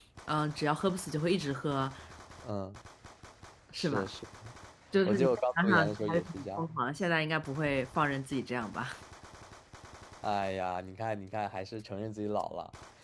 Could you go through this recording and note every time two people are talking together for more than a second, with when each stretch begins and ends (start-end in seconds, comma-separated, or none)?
5.0-6.8